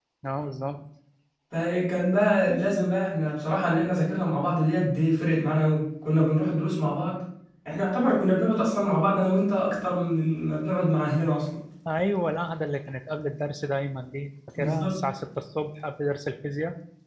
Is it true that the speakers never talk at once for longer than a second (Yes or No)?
Yes